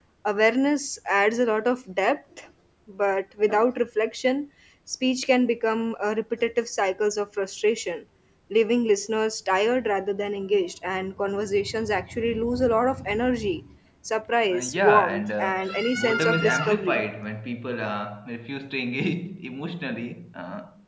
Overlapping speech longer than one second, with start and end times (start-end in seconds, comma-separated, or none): 14.5-17.0